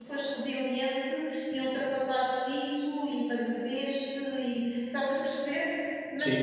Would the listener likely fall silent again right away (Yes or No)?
Yes